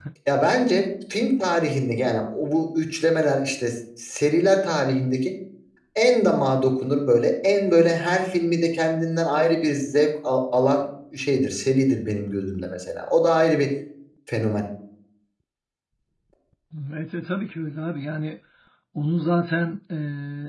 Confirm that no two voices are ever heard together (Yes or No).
Yes